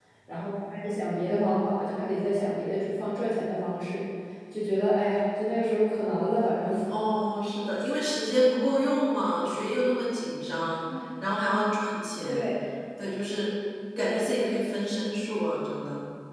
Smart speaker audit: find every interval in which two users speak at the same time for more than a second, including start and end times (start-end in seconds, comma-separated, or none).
none